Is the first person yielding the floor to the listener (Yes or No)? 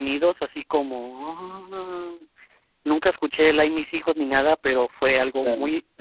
Yes